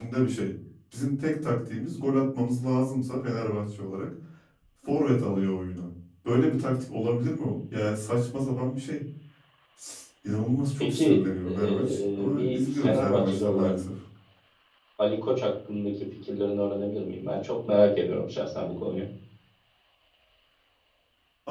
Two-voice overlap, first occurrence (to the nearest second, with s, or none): 11 s